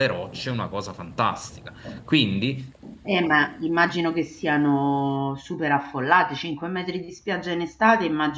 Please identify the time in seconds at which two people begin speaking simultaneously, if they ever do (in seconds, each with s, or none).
none